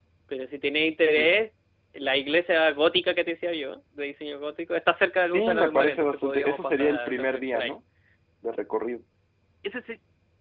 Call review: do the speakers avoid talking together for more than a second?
No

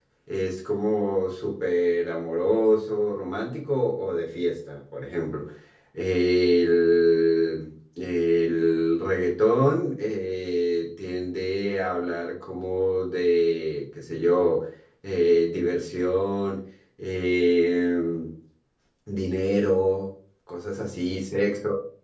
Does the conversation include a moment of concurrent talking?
No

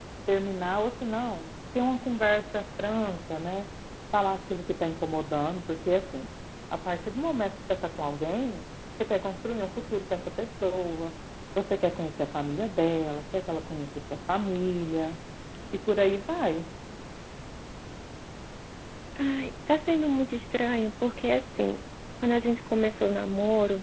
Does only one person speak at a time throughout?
Yes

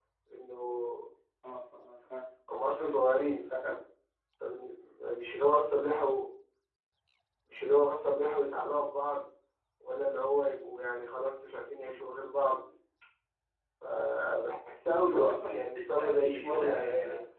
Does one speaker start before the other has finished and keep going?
Yes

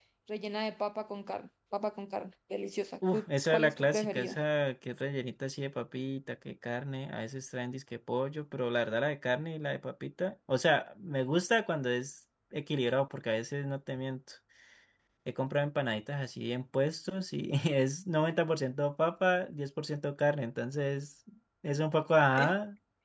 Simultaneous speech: Yes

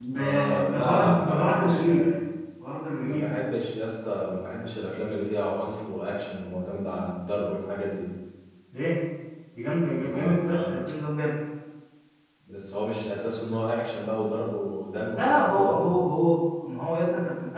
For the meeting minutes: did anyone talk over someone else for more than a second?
Yes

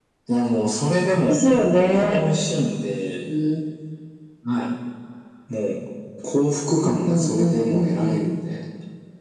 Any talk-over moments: Yes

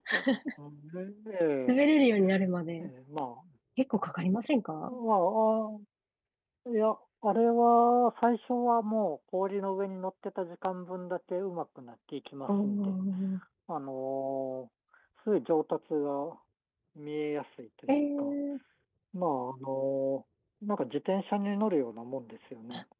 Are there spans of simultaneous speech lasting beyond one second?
No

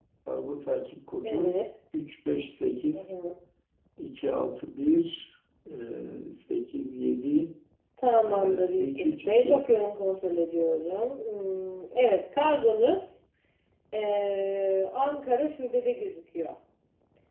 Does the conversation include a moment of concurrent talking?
Yes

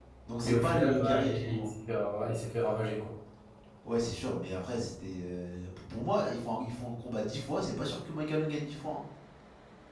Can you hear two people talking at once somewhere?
Yes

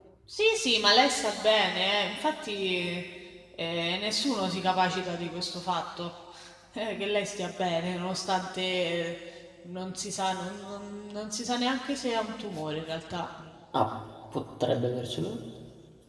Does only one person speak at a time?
Yes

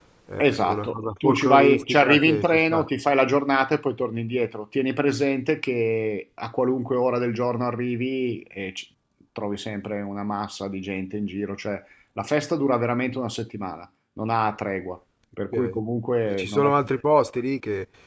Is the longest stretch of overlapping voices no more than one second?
No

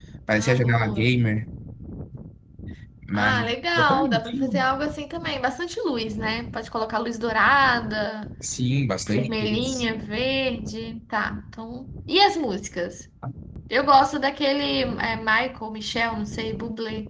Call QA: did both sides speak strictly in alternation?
No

